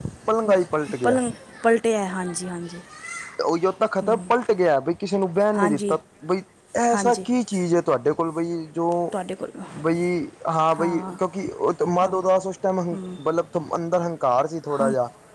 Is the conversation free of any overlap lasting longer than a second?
Yes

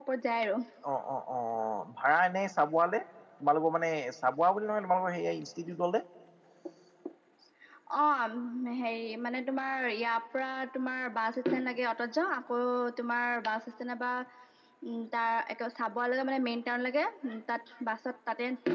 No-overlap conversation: Yes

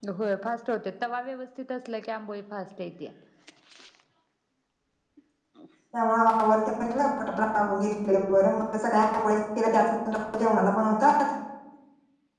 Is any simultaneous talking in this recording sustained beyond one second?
No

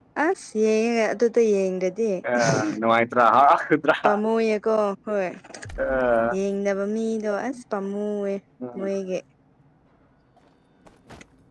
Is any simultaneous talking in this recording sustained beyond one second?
No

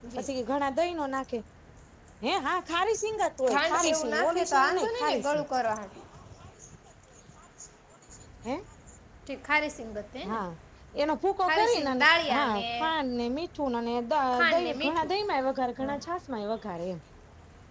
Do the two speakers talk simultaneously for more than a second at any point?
Yes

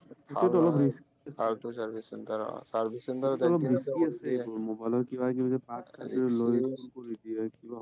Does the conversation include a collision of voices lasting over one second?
Yes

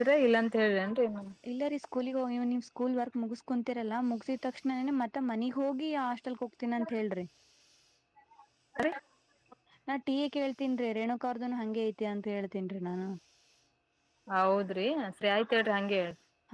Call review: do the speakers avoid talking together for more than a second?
Yes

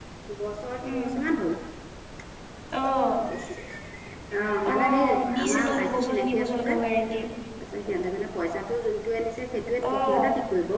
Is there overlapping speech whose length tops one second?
Yes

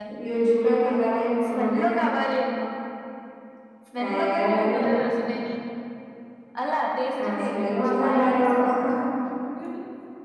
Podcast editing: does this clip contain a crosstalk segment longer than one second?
Yes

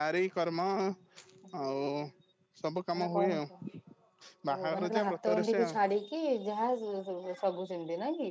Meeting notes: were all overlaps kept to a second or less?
No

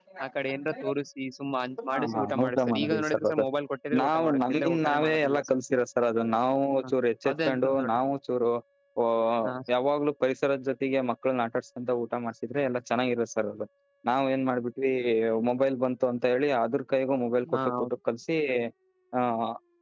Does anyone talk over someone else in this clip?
Yes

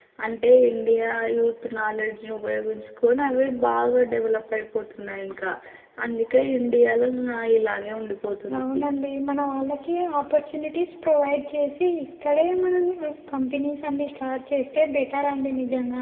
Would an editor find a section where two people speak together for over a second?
No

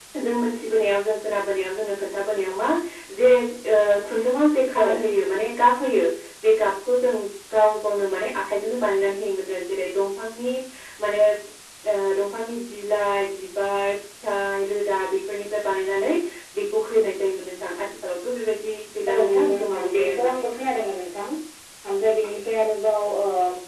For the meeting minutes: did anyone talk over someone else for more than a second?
Yes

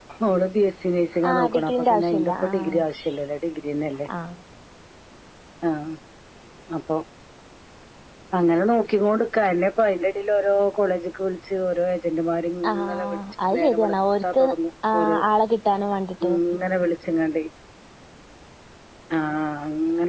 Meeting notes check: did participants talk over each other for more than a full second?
Yes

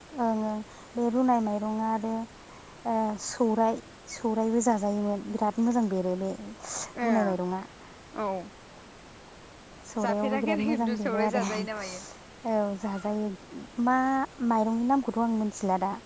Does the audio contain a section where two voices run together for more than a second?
Yes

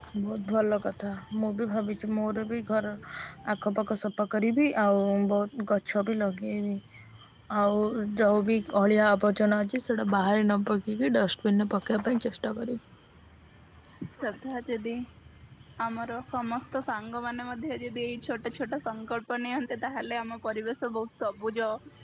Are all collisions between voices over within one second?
Yes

